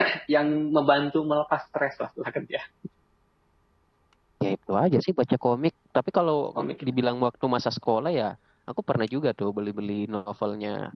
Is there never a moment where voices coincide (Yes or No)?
Yes